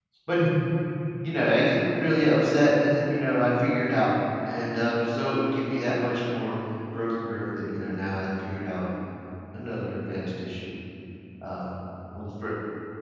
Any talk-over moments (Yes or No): No